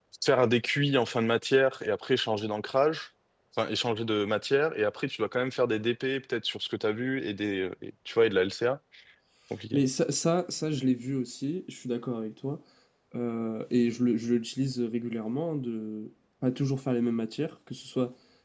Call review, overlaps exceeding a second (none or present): none